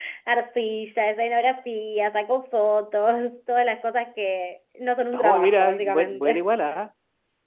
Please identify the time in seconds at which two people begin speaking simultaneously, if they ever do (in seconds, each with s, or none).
5.1 s